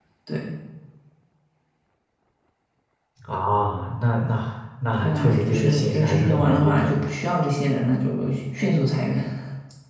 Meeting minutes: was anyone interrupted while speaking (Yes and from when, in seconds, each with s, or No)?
Yes, from 5.0 s